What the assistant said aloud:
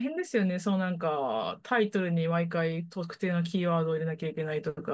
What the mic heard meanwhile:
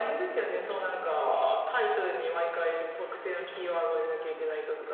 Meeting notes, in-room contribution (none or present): none